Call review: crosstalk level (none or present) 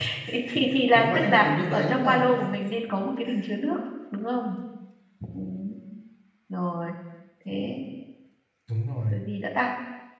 present